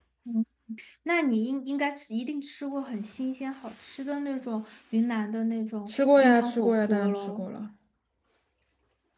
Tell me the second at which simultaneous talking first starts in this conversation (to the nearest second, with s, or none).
6 s